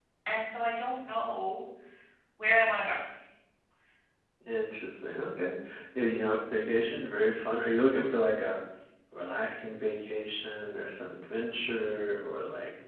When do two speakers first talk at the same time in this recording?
none

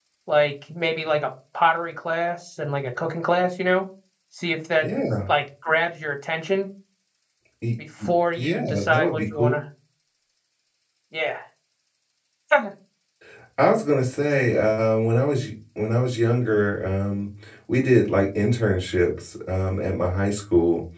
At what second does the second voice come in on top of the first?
8.4 s

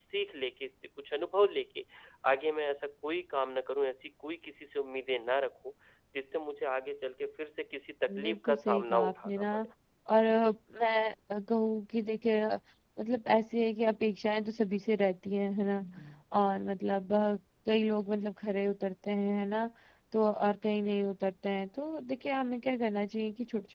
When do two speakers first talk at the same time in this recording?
8.1 s

